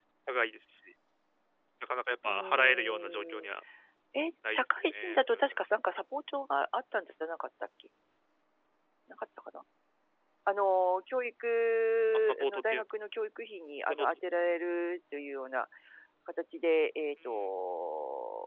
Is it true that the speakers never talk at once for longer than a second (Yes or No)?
No